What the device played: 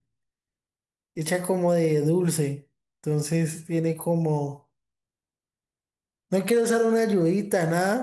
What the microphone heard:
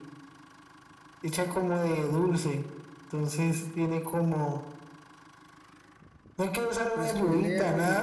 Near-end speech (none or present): present